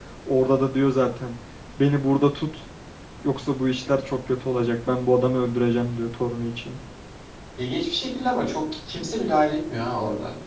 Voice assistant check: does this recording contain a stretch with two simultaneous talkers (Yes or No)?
No